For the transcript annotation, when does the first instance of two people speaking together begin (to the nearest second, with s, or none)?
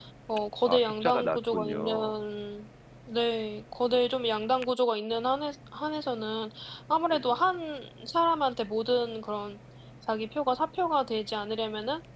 1 s